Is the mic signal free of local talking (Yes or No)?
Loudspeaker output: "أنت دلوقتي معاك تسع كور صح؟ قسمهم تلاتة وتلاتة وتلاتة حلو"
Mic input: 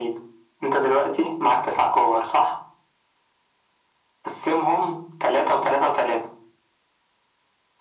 Yes